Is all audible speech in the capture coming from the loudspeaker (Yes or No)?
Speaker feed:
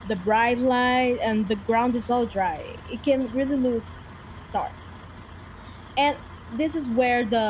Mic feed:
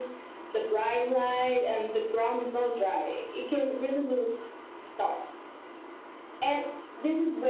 Yes